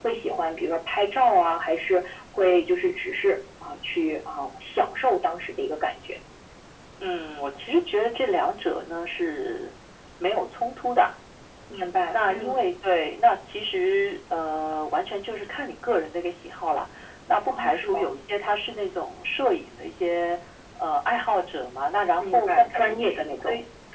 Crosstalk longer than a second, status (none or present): present